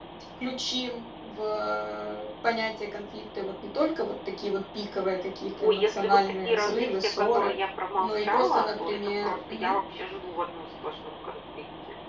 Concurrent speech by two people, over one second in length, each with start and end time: 5.6-7.5, 8.0-9.8

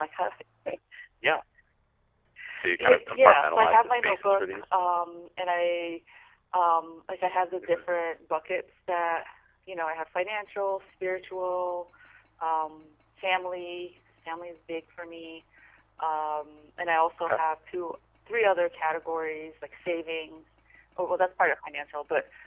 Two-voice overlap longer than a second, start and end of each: 2.8-4.7

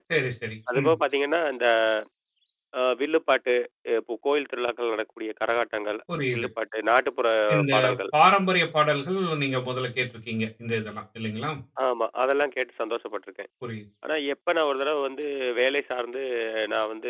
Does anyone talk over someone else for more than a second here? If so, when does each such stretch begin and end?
none

